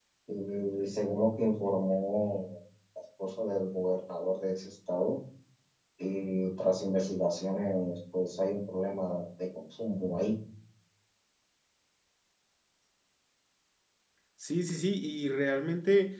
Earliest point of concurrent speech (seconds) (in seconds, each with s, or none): none